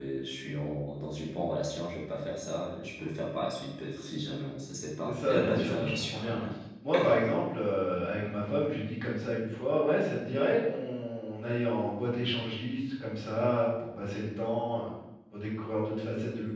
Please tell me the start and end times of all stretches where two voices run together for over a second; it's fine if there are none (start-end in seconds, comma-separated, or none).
5.0-6.4